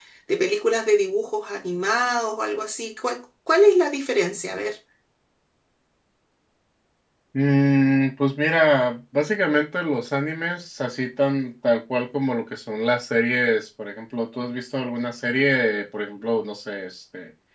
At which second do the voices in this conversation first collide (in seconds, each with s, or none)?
none